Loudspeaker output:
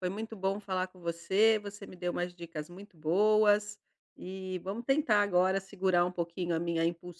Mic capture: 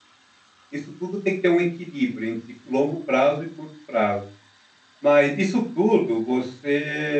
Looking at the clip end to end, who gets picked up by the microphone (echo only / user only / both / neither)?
user only